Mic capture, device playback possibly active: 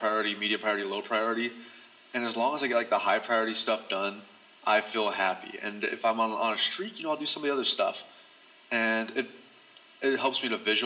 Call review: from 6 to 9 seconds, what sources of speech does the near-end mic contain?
echo only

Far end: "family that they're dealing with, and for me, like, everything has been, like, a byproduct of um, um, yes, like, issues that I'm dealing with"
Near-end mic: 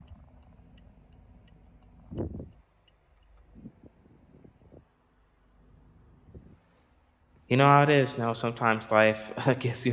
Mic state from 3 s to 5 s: neither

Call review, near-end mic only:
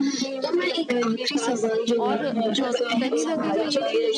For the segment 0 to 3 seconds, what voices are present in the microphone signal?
both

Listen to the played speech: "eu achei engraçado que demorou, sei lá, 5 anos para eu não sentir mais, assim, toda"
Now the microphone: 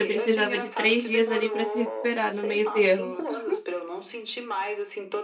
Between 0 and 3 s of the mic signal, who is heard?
both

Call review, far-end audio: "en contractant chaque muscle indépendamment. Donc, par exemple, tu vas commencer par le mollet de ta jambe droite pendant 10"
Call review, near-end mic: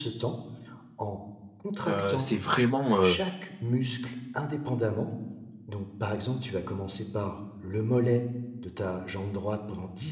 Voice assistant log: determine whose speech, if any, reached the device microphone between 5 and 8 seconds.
echo only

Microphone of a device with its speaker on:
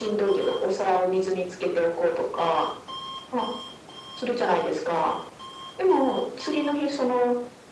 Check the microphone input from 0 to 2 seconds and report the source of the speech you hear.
echo only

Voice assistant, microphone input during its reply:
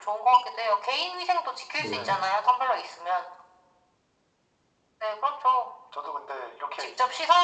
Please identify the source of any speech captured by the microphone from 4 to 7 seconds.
echo only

